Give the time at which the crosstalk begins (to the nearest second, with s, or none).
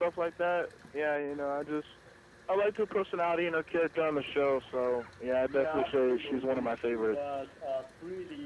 5 s